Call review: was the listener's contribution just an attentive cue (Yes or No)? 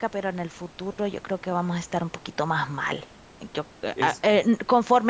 Yes